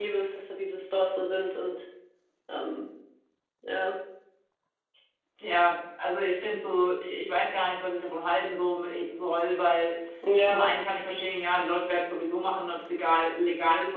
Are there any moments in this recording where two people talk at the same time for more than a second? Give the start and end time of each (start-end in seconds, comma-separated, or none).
none